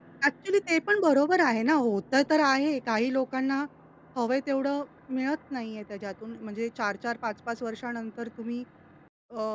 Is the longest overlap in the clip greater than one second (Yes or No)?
No